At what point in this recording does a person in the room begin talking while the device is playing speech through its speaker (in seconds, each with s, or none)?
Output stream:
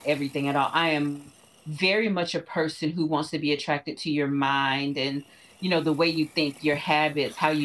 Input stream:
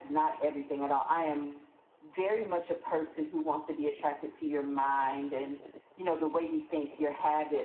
none